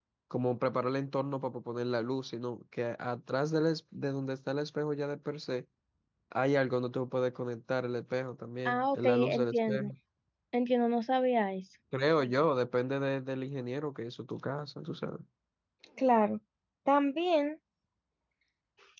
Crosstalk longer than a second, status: present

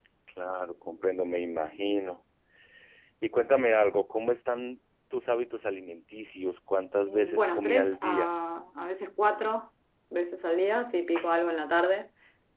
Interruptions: present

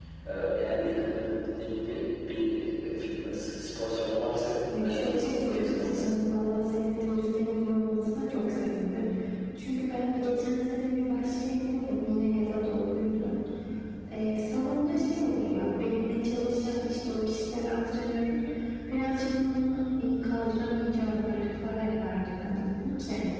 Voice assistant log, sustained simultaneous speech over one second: present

